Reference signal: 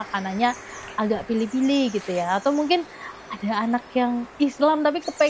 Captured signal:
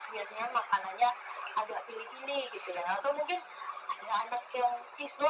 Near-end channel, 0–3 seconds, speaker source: echo only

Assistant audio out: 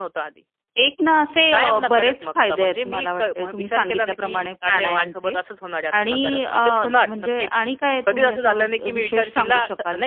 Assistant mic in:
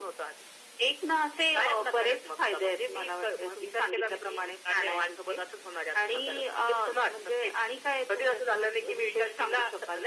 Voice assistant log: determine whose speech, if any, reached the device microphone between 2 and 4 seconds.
echo only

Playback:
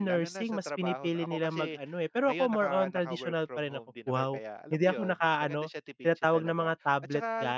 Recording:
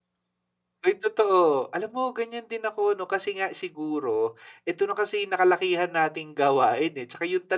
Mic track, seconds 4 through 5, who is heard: user only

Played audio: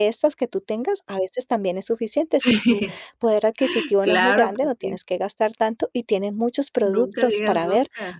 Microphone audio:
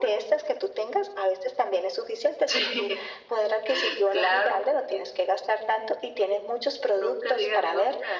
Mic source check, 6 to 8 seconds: echo only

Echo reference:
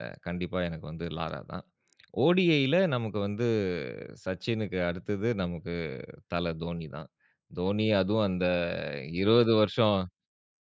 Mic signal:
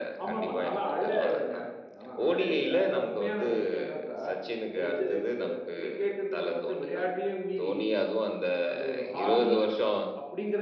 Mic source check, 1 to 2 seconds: both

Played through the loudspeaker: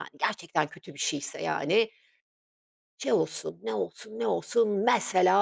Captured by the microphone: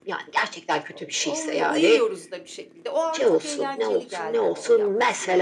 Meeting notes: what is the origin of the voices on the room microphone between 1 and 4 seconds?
both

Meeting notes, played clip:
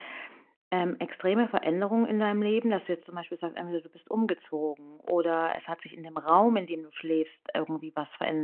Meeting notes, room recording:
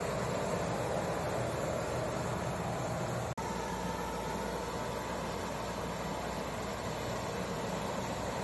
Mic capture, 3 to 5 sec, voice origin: neither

